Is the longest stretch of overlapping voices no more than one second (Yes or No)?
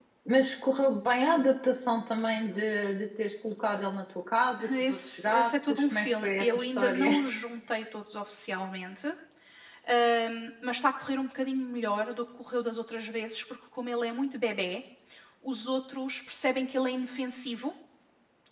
No